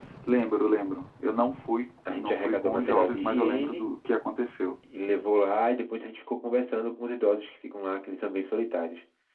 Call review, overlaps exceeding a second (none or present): present